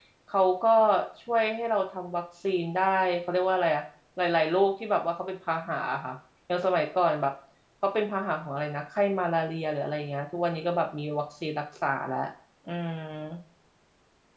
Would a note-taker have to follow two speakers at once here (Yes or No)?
No